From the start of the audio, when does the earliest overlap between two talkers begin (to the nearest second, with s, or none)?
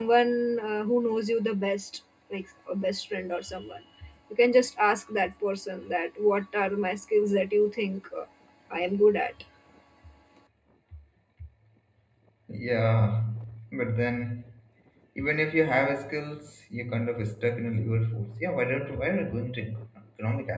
none